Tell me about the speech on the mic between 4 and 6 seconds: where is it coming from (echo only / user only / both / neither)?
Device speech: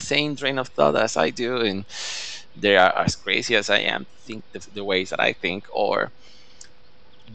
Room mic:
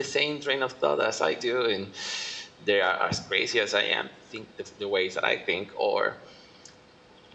echo only